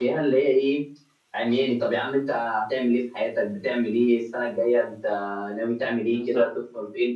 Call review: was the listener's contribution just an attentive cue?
Yes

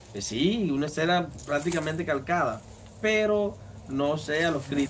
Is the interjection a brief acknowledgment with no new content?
Yes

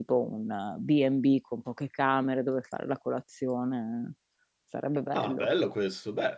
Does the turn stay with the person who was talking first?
No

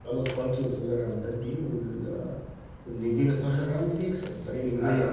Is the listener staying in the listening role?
No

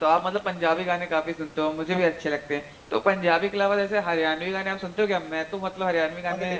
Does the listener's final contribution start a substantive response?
No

